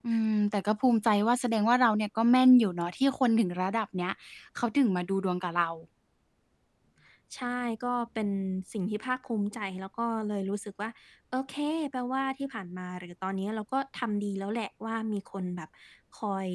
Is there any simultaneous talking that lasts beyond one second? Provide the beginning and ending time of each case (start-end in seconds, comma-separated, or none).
none